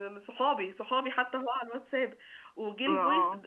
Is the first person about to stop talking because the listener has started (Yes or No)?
No